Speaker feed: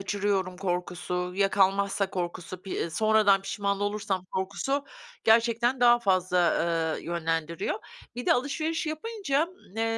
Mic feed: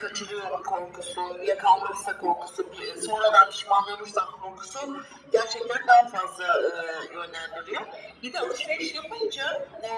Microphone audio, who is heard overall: echo only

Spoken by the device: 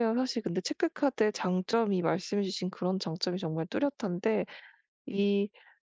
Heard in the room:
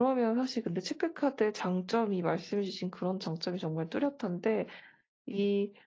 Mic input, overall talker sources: echo only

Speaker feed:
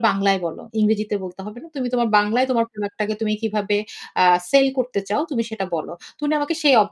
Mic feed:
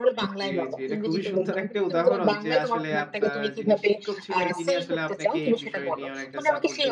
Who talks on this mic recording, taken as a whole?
both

